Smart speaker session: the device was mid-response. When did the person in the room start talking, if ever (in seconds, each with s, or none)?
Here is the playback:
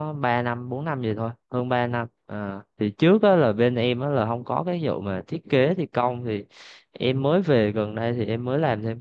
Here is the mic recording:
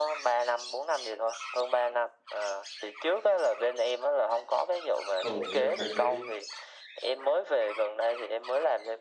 5.2 s